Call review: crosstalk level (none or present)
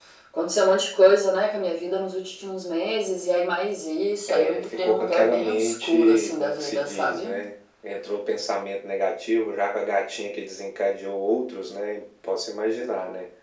present